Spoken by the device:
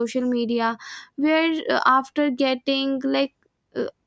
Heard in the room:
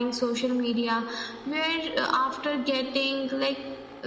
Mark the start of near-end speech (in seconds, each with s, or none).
none